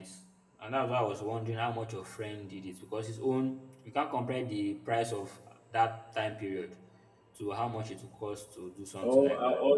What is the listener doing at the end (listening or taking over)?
taking over